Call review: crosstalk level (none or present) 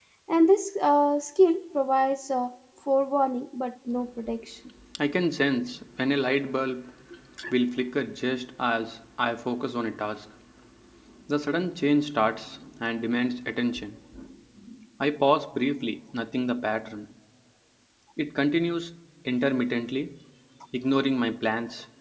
none